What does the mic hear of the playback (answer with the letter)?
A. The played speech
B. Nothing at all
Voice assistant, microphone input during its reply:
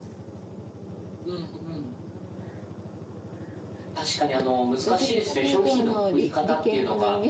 A